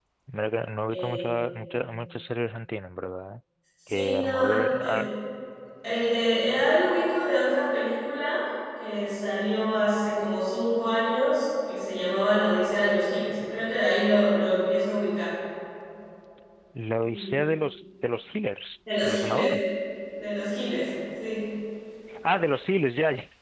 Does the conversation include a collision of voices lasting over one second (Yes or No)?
Yes